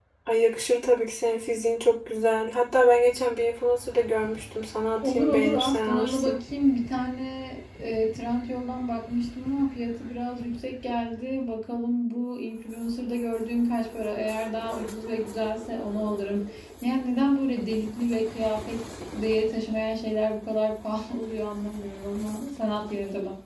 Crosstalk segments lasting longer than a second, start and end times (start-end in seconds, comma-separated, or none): 5.0-6.4